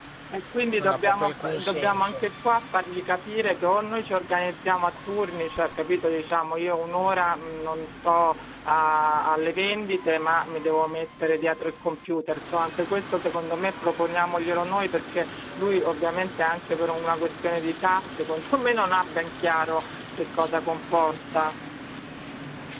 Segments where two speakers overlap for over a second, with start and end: 0.8-2.2

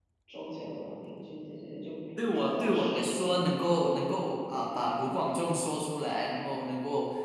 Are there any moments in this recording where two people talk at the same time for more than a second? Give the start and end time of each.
2.3-3.6

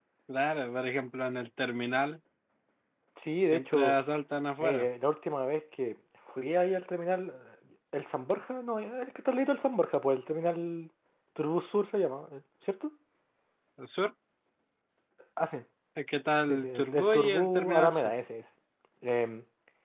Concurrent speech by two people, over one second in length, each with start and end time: 16.5-18.1

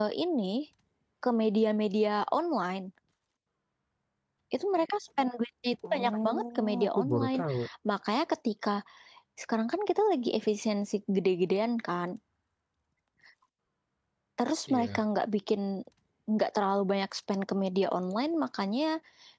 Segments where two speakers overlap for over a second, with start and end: 5.8-7.4

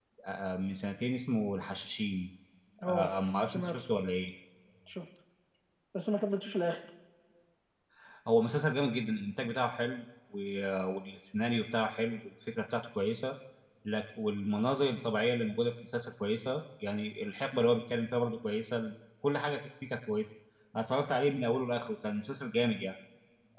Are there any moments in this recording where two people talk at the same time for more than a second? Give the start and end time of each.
none

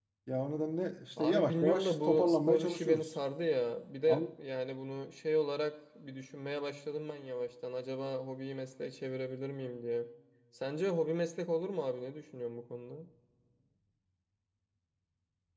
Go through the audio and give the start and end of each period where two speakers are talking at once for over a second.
1.2-3.1

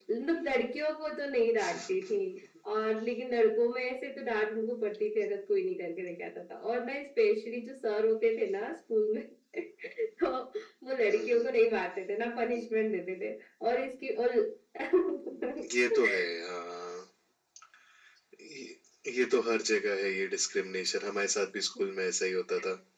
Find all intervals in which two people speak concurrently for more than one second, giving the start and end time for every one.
none

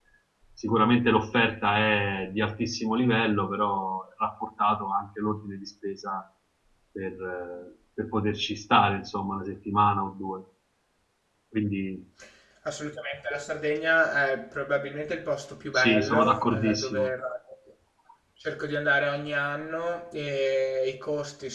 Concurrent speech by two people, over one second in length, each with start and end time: 15.7-17.1

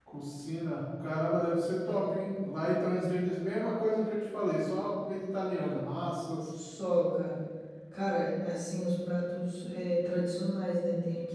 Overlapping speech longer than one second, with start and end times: none

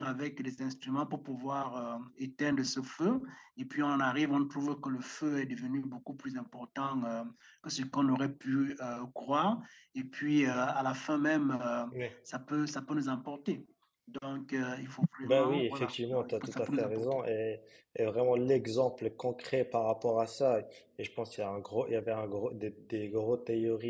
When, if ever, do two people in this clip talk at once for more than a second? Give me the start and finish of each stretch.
15.2-17.2

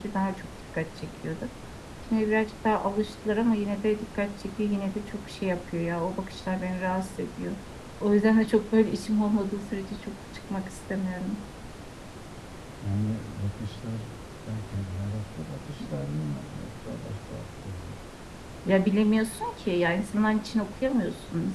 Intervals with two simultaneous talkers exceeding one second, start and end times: none

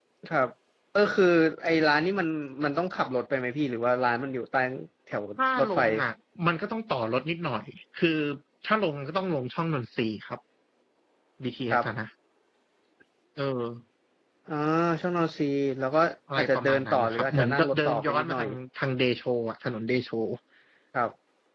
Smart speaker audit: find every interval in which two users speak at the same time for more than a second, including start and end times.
16.4-18.4

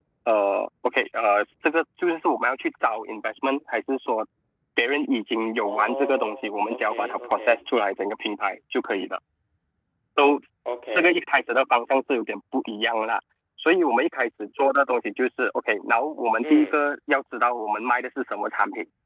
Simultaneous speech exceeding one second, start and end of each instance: 5.6-7.7

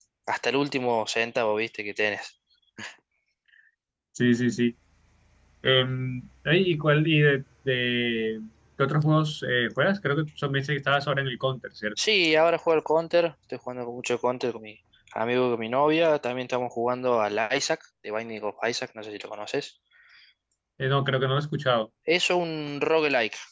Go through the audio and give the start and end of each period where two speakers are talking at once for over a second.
none

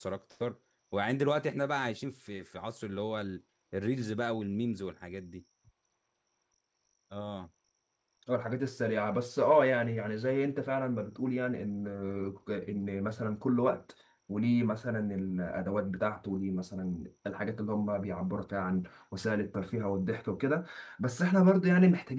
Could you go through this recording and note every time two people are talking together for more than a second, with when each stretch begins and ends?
none

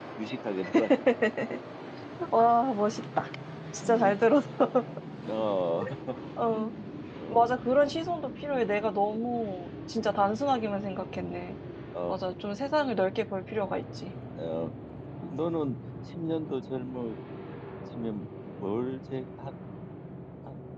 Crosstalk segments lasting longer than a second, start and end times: none

